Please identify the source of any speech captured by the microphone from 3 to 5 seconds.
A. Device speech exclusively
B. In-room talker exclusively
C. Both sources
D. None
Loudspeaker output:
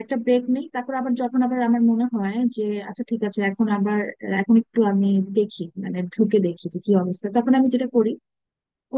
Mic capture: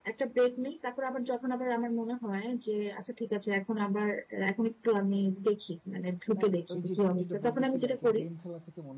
A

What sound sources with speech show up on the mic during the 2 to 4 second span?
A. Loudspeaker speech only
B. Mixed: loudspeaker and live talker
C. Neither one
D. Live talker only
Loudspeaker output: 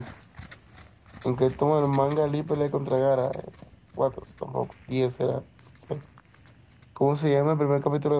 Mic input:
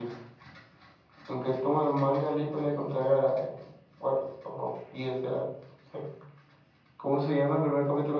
A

